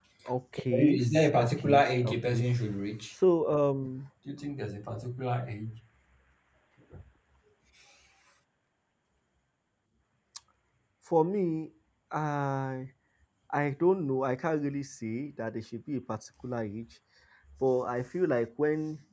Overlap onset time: 0.7 s

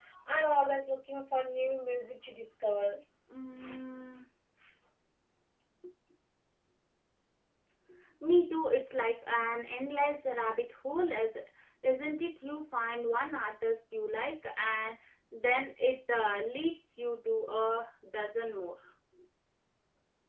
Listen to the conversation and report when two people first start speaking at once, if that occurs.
none

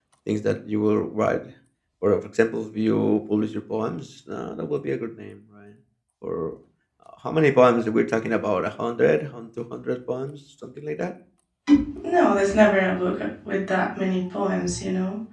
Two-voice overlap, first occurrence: none

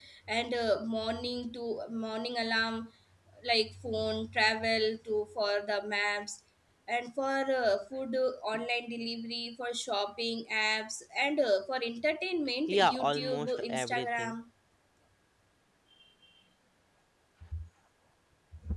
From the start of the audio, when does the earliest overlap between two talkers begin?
12.7 s

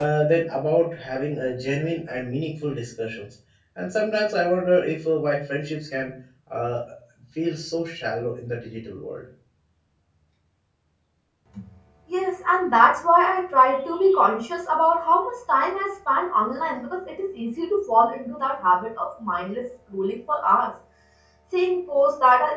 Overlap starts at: none

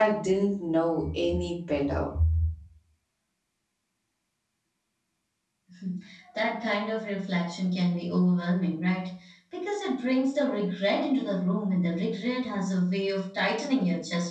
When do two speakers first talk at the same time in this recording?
none

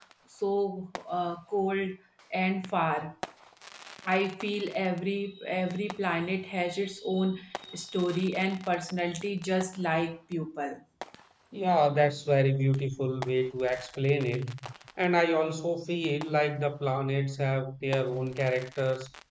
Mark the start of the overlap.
none

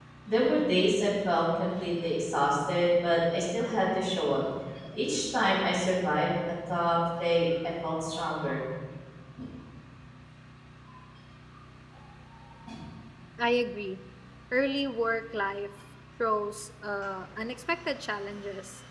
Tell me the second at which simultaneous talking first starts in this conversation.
none

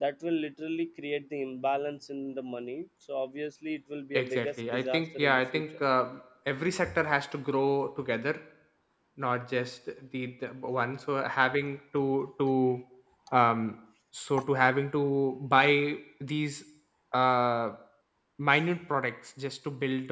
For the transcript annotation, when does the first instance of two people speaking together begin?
4.1 s

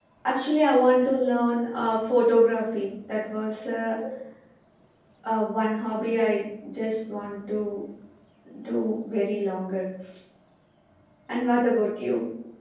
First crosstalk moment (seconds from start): none

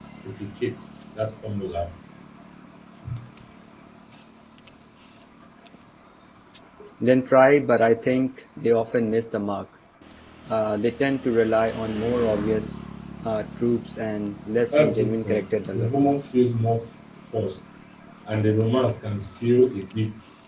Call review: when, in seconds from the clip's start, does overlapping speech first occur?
14.7 s

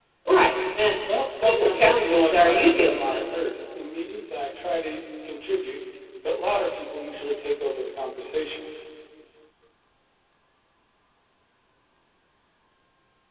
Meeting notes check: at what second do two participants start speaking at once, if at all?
1.4 s

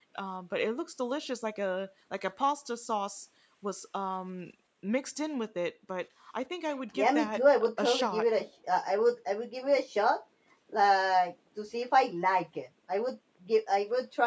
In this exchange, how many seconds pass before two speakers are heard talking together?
7.0 s

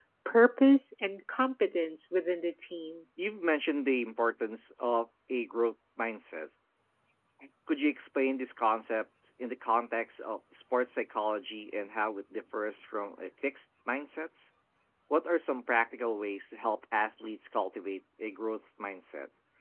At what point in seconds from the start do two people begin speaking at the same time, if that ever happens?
none

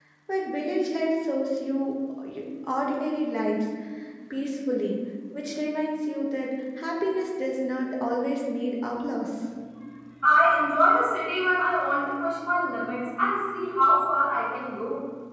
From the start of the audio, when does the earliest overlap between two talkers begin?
none

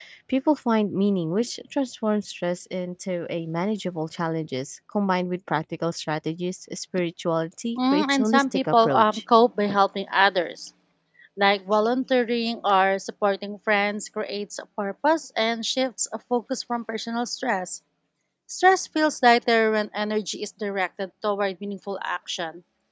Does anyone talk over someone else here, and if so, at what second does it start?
7.8 s

